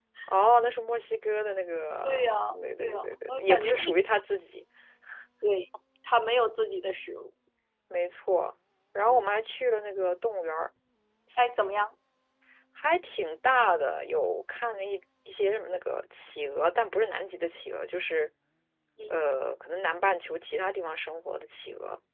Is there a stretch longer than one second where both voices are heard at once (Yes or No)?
Yes